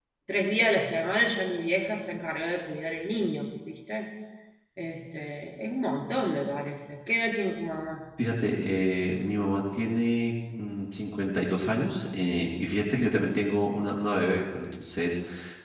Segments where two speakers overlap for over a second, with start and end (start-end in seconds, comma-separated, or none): none